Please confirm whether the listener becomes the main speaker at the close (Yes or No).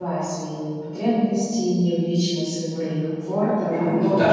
Yes